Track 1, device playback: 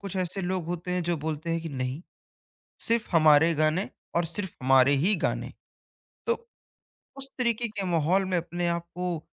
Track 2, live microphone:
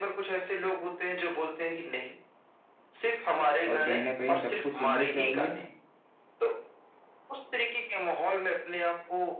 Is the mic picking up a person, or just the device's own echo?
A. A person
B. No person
A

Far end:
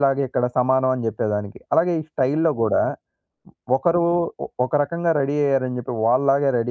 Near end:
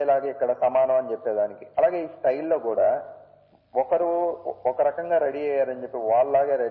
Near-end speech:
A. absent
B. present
A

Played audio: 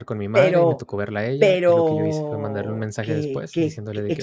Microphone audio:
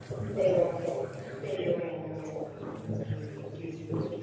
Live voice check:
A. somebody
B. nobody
B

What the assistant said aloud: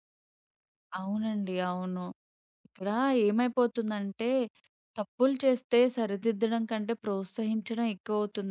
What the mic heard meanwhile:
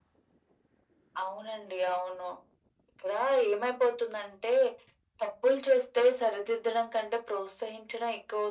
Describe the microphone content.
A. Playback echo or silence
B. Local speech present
A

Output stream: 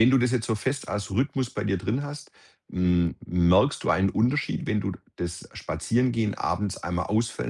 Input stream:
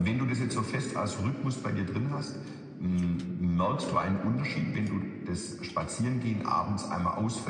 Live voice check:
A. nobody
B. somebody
A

